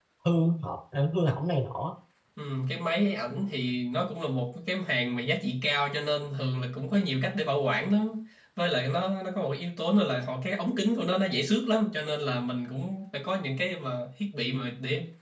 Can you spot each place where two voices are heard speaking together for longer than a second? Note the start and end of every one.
none

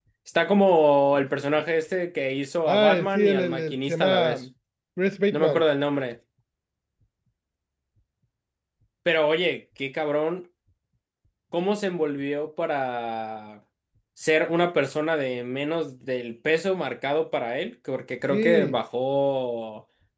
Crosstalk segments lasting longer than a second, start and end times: 2.7-4.4

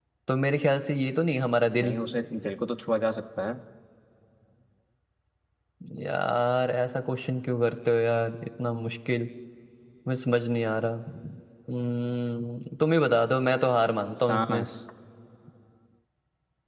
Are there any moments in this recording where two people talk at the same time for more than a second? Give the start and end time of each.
none

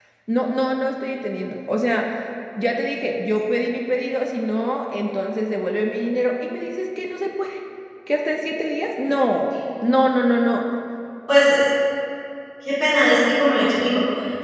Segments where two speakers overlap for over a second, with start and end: none

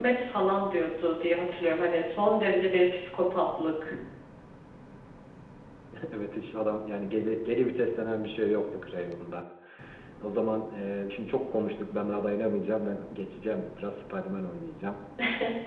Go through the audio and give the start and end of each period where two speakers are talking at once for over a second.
none

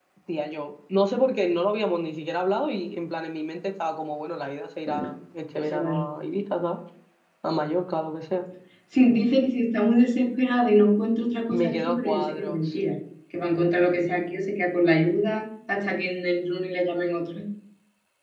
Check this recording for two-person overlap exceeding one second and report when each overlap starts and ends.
11.5-12.8

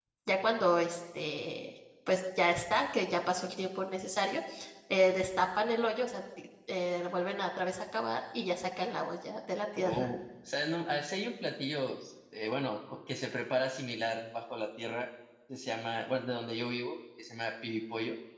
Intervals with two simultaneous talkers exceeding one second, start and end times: none

